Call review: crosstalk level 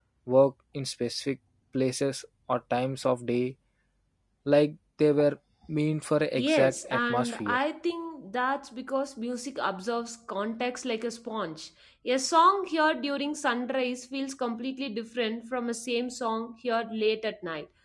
present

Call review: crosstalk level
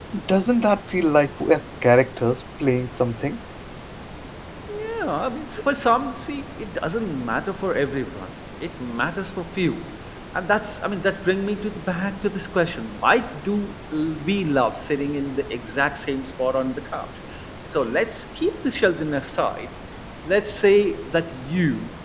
none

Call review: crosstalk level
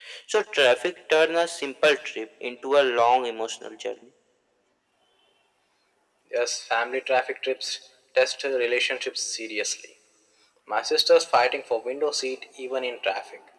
none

